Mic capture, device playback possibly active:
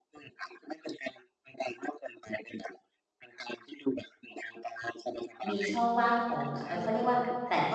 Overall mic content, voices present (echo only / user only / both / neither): both